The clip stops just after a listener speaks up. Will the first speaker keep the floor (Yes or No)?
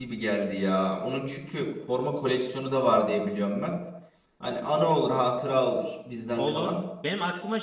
No